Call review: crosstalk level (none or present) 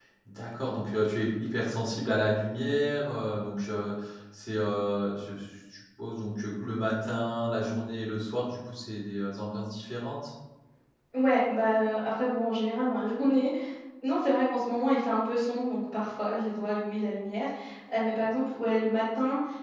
none